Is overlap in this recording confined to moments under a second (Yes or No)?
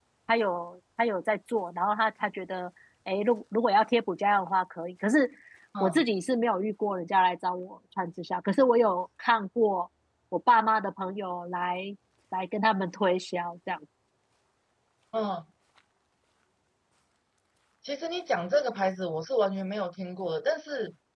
Yes